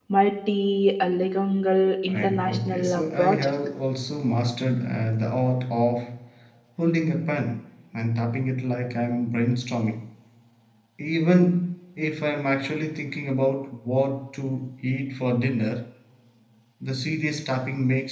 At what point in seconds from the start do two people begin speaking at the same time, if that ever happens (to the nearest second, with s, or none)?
2 s